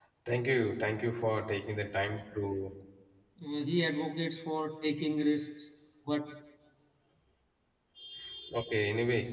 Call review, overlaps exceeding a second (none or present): none